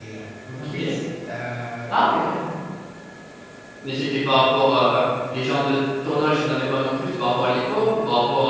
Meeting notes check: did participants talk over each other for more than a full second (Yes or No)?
No